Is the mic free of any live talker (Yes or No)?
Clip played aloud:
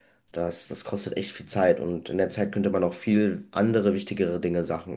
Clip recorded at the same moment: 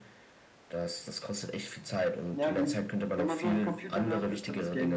No